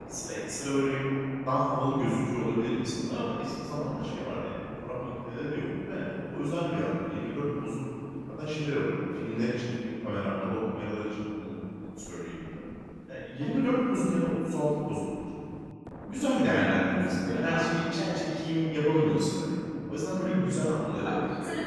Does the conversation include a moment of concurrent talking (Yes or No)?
Yes